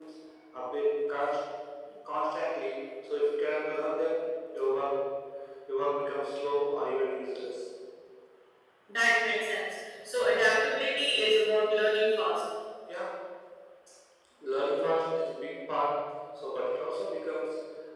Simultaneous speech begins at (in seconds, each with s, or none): none